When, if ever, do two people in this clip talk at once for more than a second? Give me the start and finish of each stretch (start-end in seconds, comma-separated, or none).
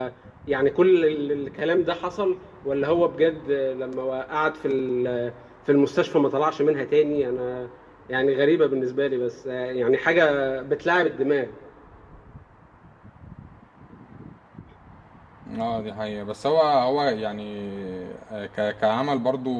none